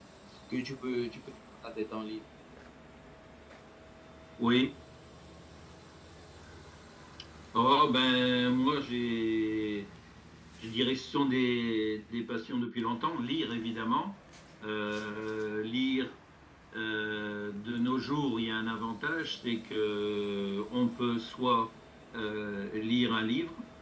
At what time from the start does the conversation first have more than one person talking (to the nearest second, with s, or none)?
none